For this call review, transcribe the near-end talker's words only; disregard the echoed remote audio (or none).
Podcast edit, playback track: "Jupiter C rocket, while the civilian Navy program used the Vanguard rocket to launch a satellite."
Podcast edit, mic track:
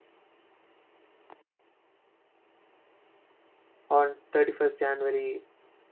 On 31st January